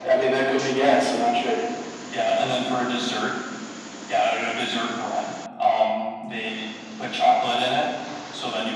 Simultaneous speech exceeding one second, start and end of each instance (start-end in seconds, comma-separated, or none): none